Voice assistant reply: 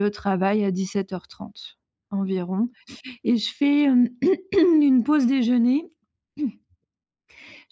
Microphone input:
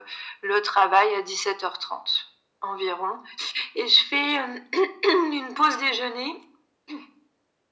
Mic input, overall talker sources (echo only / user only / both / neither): echo only